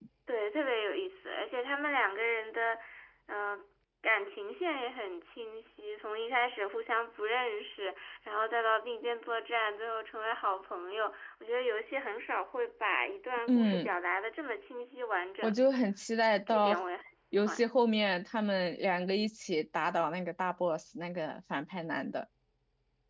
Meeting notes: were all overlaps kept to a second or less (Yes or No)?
Yes